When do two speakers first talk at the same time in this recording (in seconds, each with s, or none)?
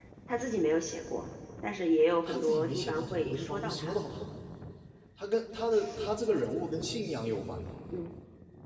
2.3 s